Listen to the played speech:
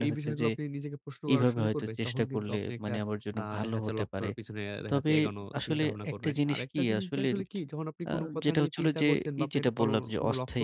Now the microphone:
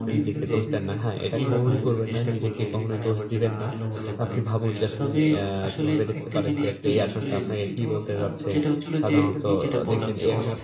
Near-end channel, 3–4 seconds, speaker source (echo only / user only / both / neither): both